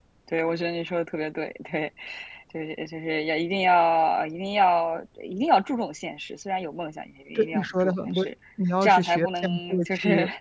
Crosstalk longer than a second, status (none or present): present